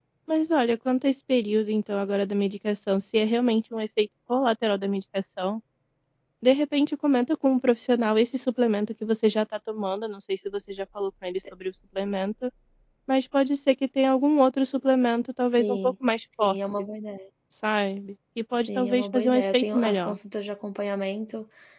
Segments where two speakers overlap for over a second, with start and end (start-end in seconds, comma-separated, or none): 18.8-20.2